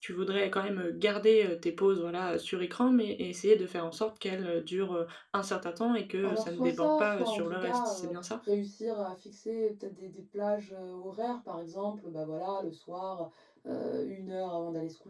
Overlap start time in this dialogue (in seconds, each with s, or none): 6.2 s